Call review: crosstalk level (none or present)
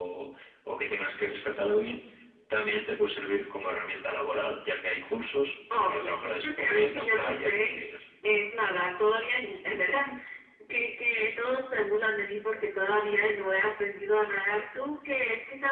present